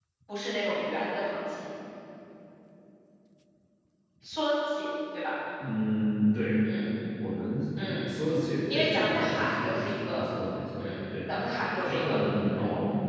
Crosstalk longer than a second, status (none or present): present